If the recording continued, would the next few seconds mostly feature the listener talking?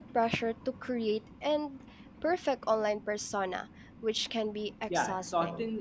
Yes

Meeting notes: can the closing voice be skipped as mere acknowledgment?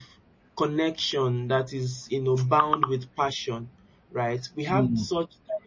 Yes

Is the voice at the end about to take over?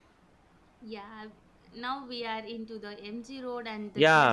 Yes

